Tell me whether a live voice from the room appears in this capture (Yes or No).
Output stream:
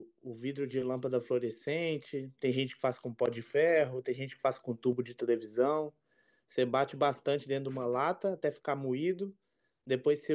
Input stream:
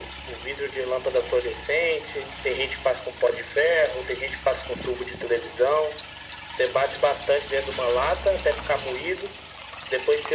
No